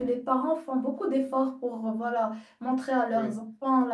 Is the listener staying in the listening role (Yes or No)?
Yes